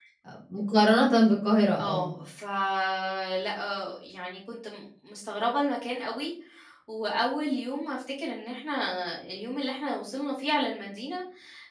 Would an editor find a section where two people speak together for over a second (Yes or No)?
No